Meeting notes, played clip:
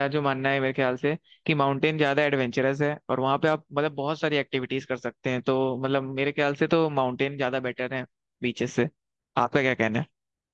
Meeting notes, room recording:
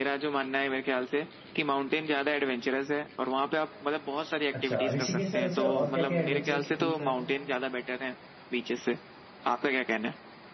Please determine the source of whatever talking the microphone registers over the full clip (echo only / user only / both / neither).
both